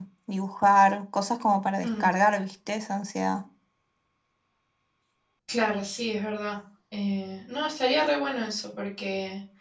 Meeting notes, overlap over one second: none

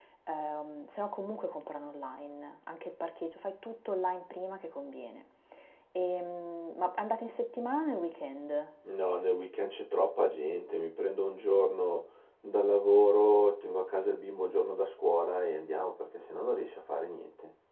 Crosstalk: none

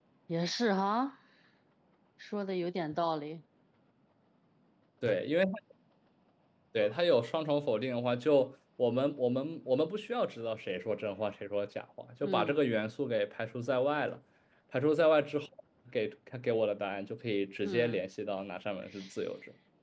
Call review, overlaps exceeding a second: none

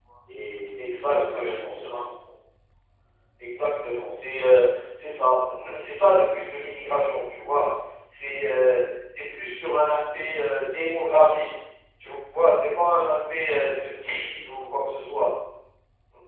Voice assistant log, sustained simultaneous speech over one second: present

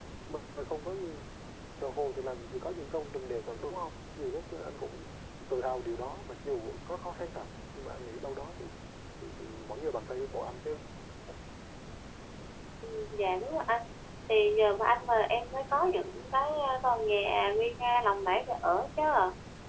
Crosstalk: none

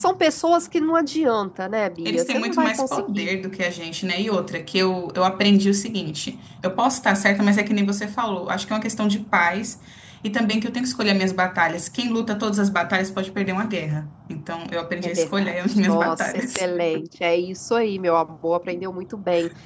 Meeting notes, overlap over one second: present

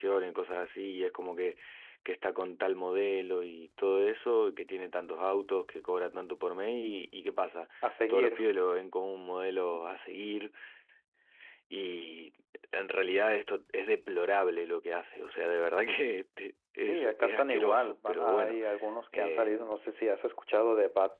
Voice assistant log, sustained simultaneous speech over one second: present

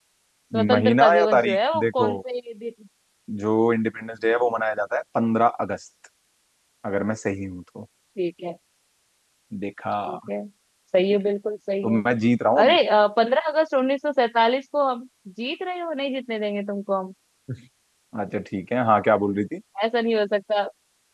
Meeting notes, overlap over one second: present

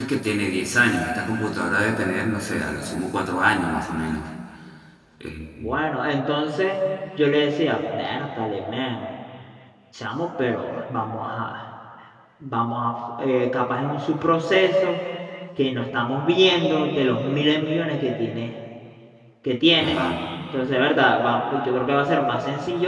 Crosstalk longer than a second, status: none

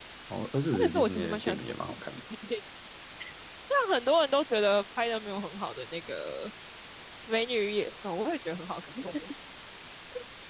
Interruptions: present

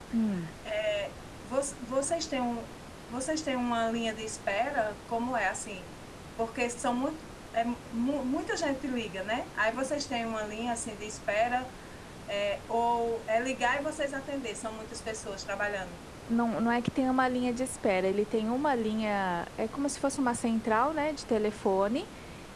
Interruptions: none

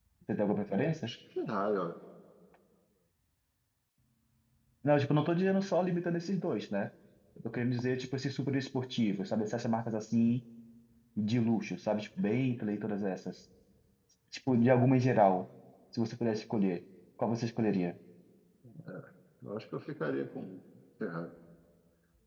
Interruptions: none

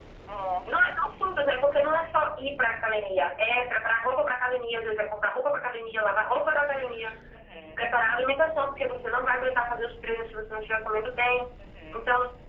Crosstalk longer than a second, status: none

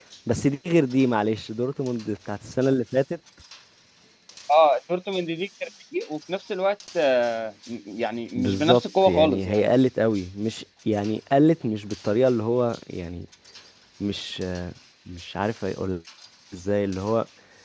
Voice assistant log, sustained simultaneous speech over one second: present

